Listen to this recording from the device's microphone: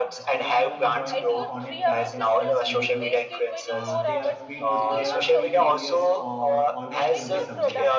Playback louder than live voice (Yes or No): Yes